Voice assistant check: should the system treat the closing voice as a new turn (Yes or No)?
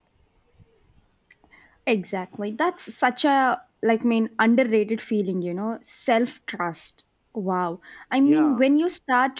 No